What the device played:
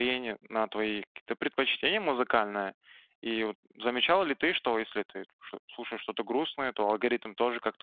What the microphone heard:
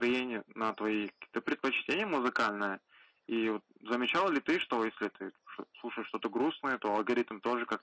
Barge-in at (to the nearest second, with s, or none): none